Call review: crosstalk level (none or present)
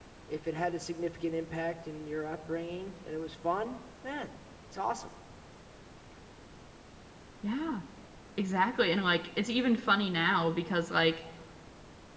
none